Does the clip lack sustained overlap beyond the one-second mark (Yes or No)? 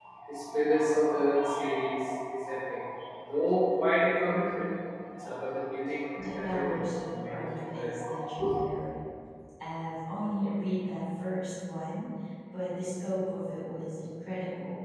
No